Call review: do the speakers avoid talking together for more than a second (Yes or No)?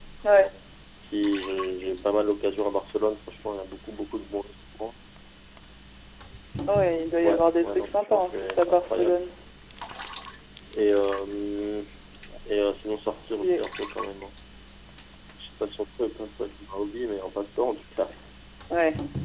No